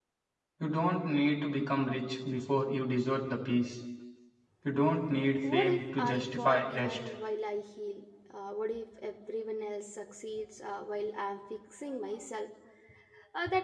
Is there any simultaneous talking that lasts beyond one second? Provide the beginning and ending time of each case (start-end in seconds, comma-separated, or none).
5.5-7.0